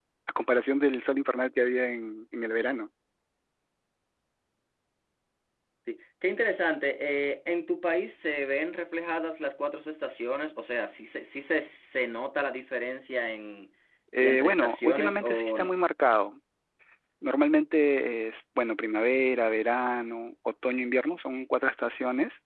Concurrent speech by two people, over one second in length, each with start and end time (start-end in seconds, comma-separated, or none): 14.2-15.7